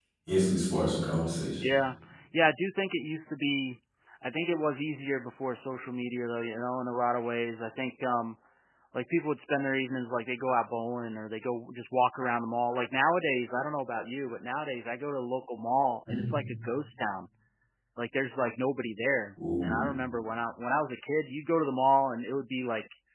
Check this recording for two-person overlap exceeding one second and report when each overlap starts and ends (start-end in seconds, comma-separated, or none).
none